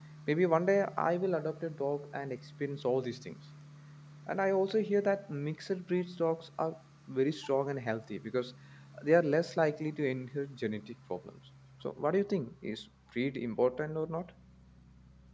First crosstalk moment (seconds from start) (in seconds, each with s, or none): none